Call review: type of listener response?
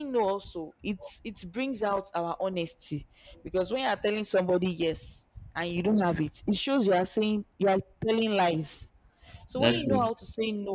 listening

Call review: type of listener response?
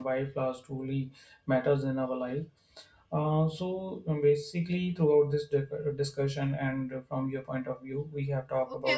taking over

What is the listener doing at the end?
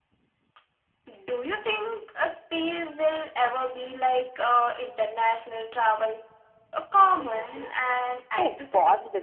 taking over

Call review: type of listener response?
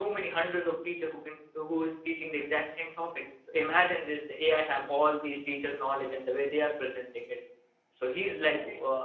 listening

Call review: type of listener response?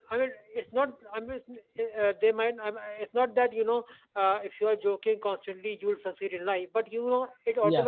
listening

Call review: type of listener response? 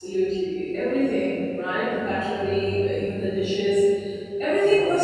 listening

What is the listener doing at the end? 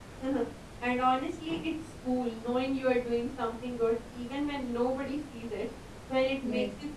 listening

